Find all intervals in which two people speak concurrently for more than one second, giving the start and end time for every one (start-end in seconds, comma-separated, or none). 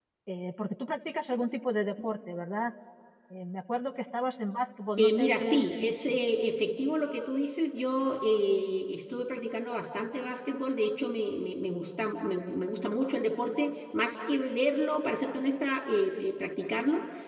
5.0-6.2